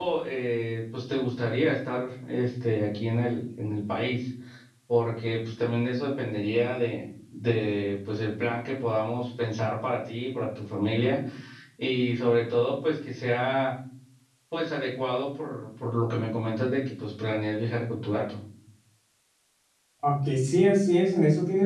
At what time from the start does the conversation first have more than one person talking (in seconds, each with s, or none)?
none